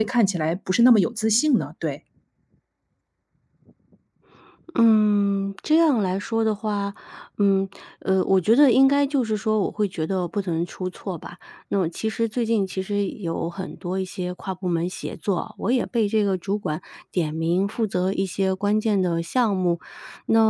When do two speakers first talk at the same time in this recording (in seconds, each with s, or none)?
none